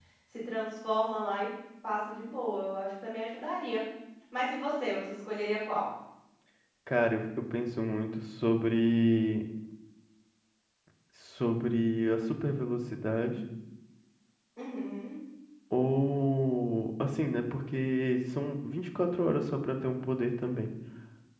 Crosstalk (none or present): none